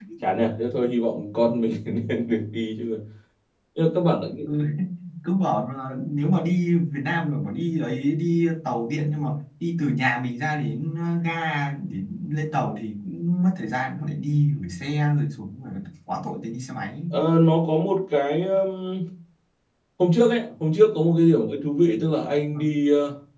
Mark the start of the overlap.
none

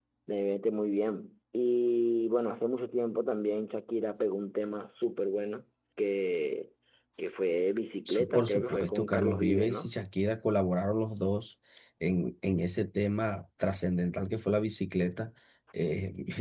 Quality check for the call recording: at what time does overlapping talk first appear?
8.1 s

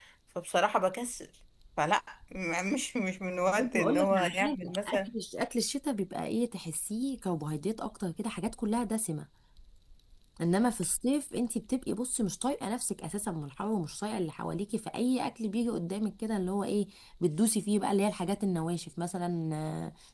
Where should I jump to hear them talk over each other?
3.5 s

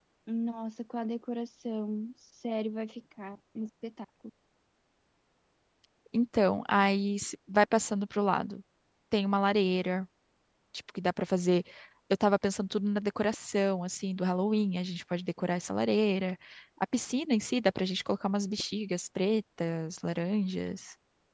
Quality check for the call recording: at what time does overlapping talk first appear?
none

